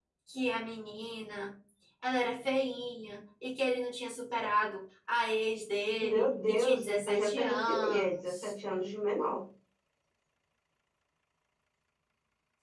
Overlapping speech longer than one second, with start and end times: 6.0-8.5

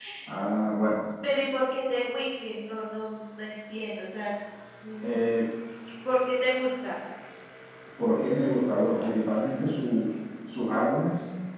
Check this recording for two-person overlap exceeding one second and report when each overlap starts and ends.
none

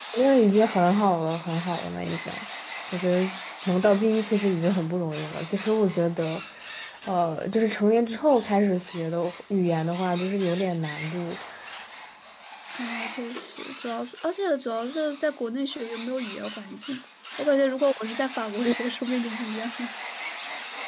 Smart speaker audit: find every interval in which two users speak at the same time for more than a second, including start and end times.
none

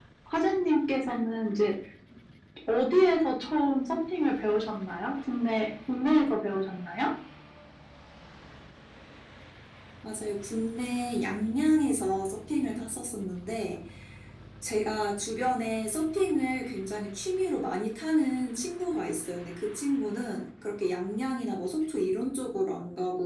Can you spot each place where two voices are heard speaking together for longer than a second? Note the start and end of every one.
none

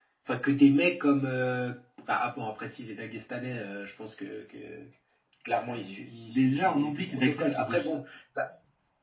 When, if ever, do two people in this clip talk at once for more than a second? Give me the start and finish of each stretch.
5.6-7.8

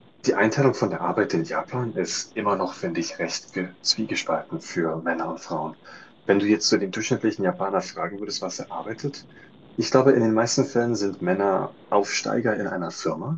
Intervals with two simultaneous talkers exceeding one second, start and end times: none

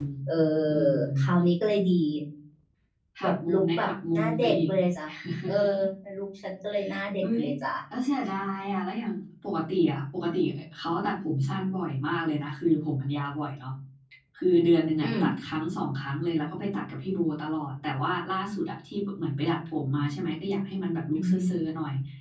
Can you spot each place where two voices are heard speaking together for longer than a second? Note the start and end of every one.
3.2-4.7

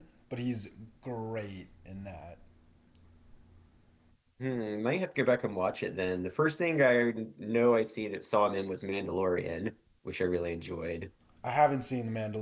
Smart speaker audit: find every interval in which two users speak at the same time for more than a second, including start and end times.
none

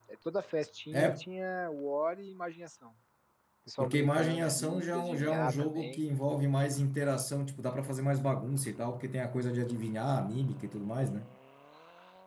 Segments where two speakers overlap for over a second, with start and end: 3.8-6.0

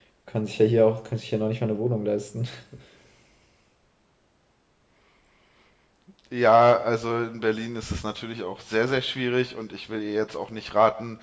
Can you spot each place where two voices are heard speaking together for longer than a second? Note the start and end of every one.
none

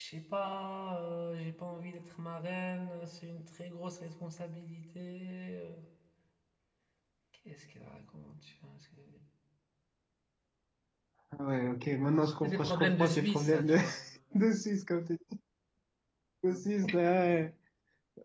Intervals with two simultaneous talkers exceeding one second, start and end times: 12.4-13.8

